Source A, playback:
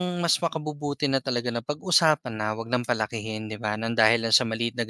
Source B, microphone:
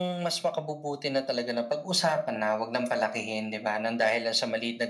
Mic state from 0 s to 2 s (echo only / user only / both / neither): echo only